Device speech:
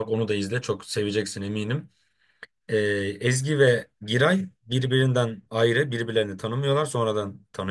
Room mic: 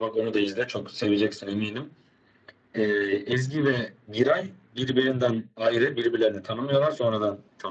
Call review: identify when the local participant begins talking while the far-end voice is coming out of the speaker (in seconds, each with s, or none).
none